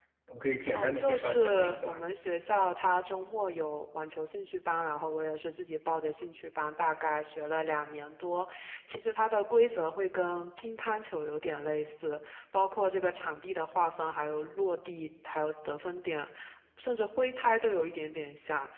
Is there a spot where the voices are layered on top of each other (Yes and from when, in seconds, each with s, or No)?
Yes, from 0.7 s